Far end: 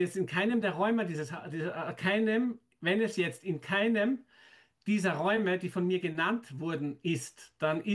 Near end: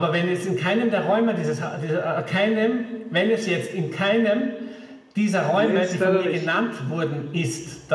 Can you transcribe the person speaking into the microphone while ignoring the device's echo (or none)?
Nee, ist leider nicht.